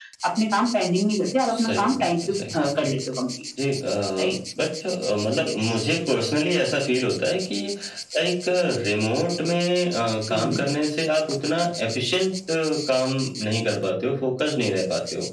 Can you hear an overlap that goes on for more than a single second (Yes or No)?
Yes